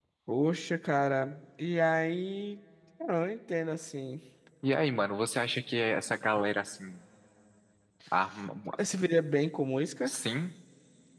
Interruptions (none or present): none